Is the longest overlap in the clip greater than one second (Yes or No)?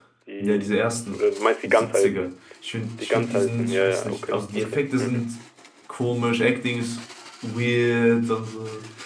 Yes